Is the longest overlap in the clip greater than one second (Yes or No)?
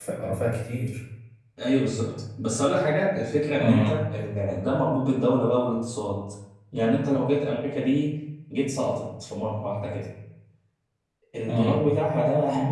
No